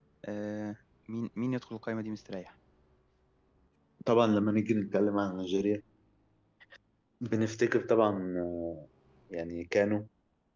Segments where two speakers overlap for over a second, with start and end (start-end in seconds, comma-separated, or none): none